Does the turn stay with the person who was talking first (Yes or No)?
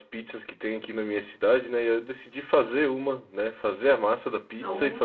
Yes